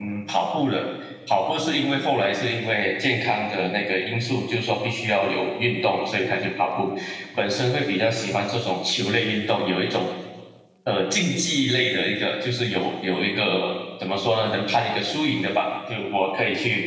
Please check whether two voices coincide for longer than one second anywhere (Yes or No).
No